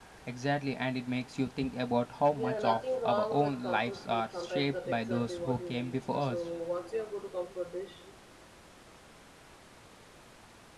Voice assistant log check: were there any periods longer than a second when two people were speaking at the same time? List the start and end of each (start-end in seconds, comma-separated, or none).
2.3-6.4